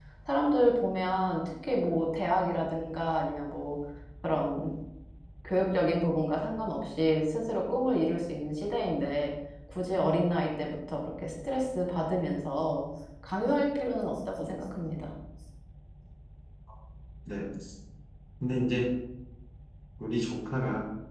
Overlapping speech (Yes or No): No